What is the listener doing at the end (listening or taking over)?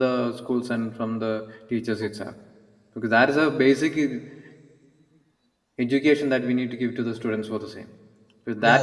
listening